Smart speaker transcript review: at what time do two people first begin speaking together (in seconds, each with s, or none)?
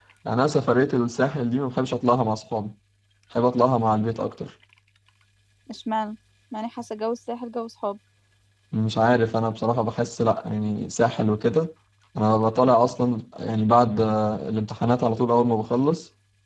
none